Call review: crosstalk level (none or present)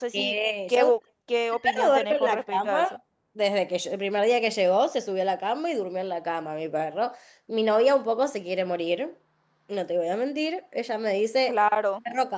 present